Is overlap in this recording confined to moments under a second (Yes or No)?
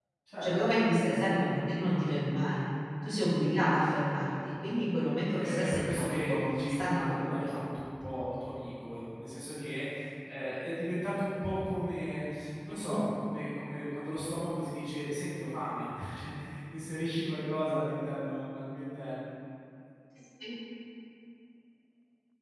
No